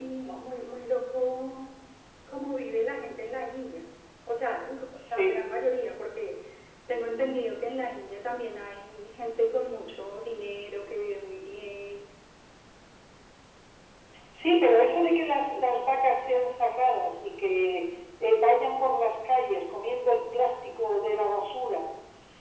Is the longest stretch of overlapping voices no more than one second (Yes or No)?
Yes